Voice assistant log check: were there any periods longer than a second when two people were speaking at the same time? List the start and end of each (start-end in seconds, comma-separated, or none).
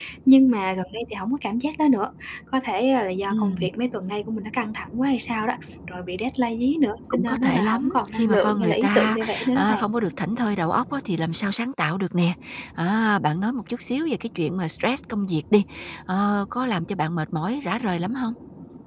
7.1-9.8